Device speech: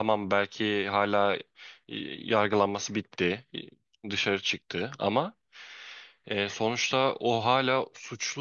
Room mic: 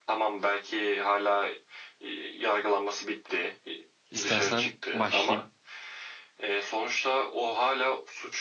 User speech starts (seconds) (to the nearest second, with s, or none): 4 s